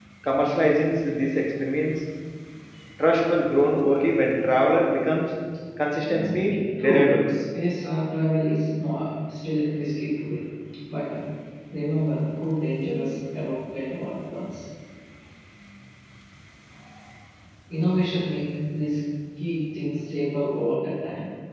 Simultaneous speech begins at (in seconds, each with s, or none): 6.1 s